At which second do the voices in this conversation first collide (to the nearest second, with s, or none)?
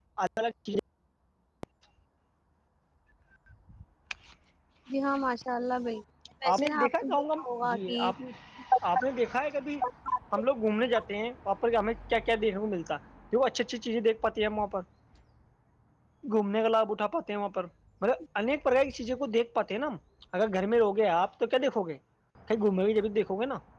7 s